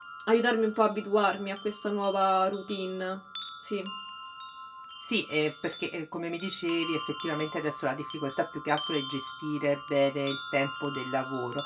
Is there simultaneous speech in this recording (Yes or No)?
No